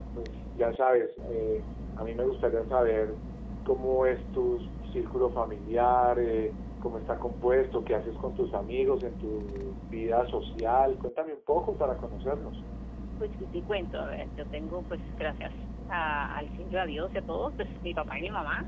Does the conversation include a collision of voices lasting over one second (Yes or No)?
No